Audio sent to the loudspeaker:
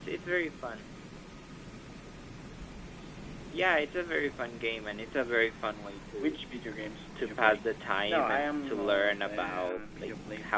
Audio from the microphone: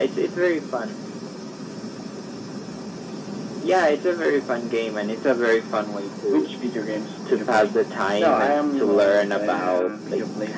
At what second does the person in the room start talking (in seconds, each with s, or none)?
none